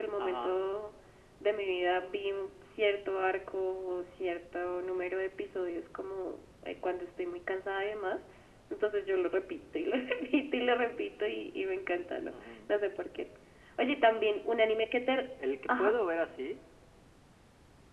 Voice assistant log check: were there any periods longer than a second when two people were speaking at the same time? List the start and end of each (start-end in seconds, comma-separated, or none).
none